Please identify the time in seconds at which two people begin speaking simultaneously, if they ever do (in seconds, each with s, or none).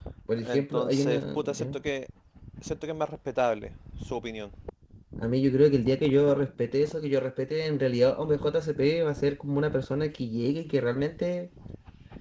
0.5 s